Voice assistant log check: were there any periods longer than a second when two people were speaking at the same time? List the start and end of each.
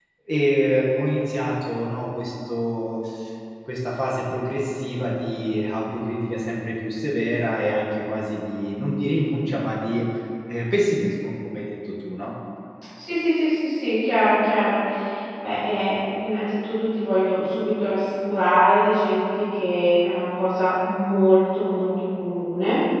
none

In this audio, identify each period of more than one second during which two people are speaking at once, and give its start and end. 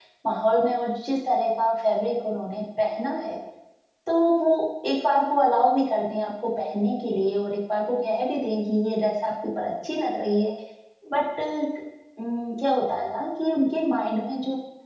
none

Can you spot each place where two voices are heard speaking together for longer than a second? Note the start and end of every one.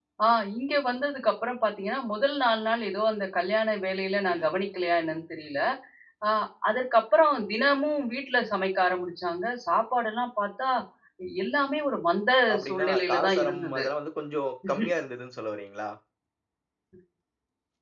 12.5-13.8

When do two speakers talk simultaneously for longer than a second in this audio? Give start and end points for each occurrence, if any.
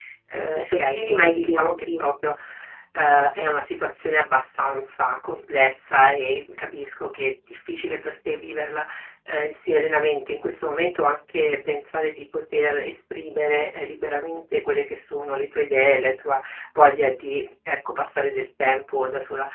0.6-2.0

